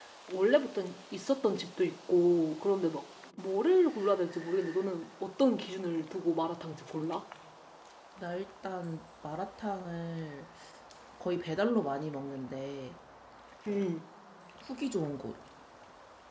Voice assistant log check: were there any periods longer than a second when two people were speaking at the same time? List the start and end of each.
none

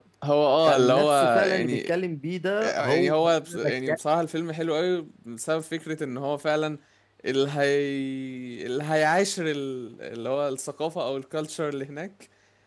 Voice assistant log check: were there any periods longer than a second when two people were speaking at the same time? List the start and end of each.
0.6-1.9, 2.6-4.0

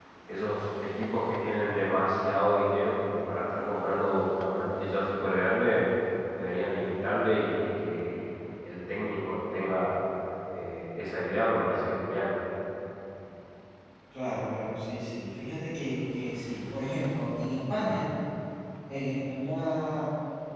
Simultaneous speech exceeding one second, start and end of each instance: none

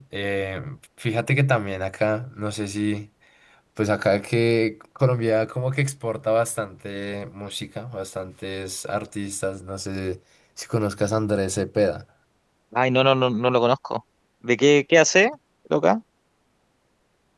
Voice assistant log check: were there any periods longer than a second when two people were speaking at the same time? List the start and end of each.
none

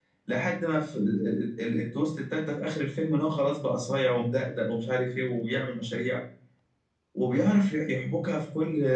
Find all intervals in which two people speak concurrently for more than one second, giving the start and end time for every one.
none

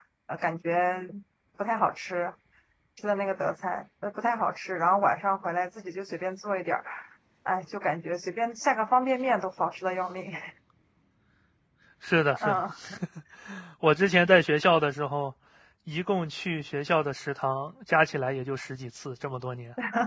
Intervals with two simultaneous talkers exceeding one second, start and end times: none

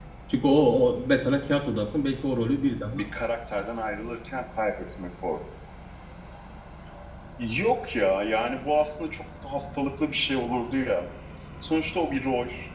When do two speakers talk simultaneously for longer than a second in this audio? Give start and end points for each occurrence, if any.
none

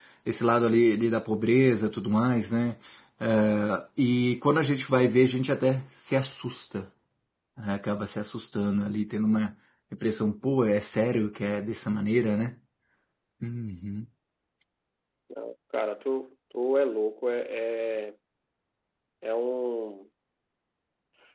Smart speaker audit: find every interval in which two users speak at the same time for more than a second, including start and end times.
none

